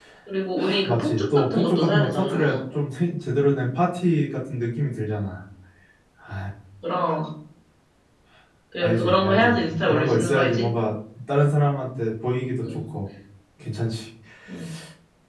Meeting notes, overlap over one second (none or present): present